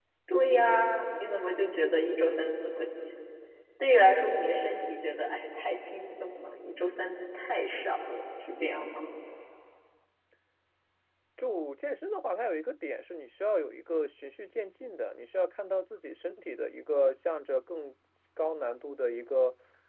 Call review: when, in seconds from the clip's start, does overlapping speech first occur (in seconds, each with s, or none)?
none